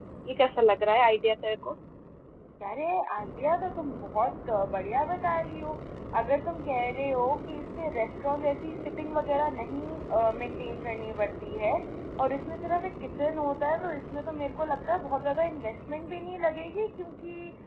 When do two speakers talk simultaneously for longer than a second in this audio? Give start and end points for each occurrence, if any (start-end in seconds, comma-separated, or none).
none